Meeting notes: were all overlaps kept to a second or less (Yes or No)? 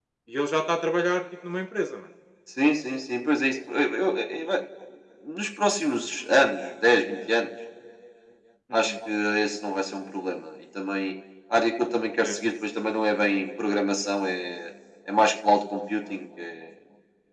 Yes